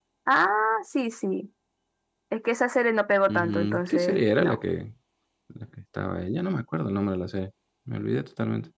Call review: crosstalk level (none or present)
present